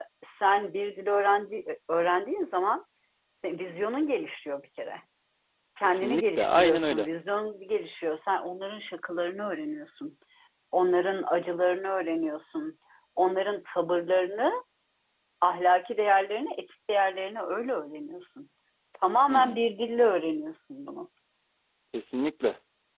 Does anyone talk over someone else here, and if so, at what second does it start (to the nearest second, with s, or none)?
6 s